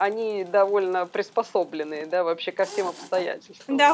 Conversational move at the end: taking over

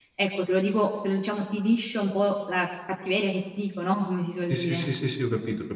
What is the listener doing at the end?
taking over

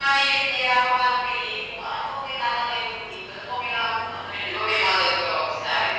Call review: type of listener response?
taking over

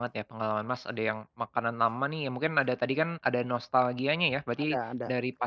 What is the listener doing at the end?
listening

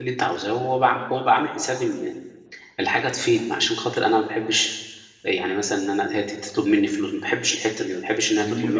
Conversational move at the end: taking over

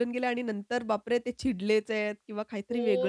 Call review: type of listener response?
taking over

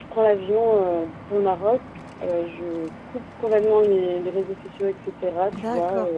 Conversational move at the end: taking over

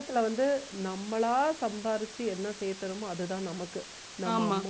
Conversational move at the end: listening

